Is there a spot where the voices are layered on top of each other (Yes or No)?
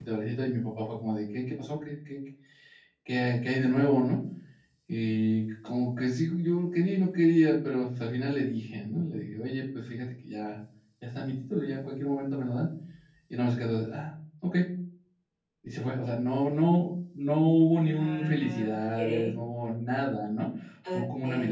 Yes